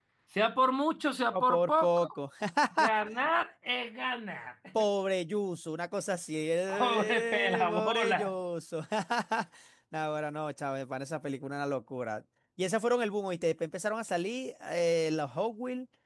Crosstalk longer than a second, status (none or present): present